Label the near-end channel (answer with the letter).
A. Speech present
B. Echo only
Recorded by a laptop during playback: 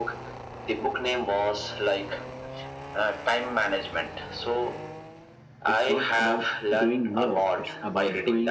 A